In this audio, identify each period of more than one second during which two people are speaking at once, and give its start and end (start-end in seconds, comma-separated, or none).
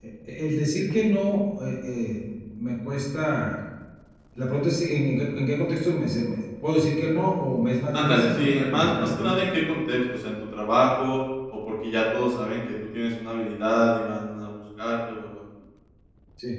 7.9-9.5